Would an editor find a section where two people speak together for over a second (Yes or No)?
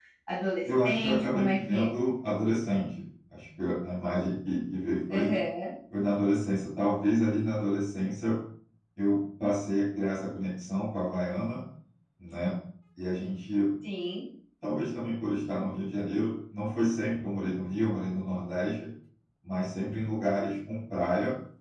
Yes